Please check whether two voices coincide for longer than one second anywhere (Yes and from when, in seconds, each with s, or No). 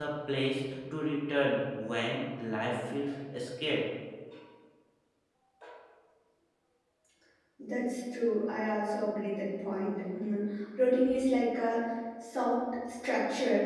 No